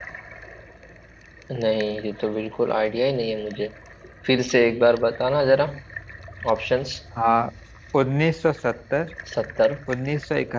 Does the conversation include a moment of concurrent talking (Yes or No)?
No